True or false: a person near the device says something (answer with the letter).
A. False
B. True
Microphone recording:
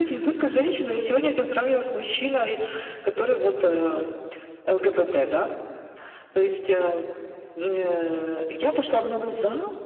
A